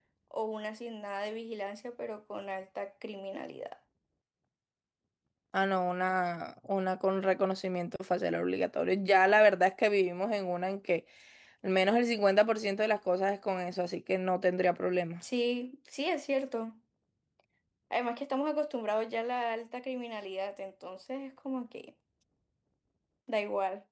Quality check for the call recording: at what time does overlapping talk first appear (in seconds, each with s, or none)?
none